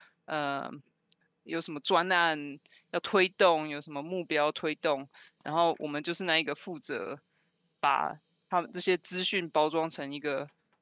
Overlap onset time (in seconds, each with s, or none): none